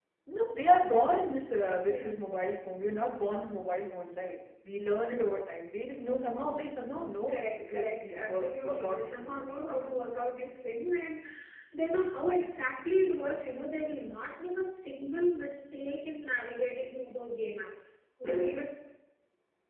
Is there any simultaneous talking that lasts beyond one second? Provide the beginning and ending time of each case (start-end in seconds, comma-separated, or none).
7.3-9.9